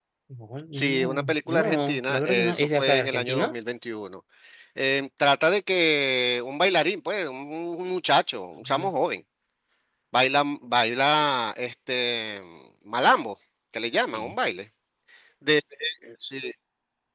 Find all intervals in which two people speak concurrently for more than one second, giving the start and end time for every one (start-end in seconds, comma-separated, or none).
0.7-3.5